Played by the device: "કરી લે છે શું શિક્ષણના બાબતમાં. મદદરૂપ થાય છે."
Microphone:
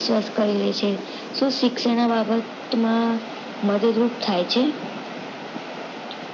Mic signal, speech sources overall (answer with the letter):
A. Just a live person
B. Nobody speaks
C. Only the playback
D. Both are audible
C